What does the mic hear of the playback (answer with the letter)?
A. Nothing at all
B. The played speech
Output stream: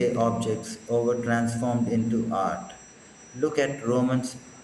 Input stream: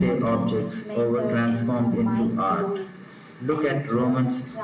B